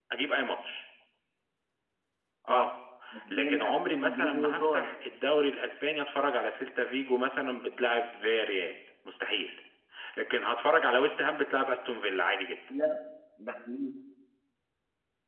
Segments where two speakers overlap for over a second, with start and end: 3.3-4.9

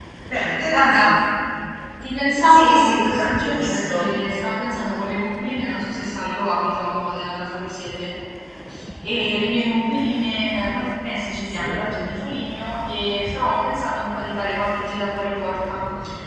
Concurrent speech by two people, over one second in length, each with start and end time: 2.4-4.2

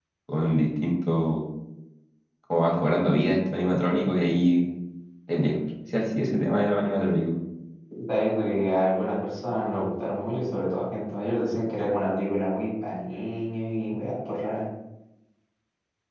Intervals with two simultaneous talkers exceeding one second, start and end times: none

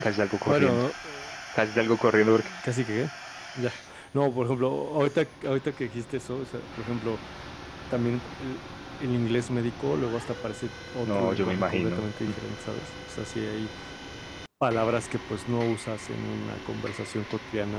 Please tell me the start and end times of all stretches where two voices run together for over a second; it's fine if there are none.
11.0-12.3

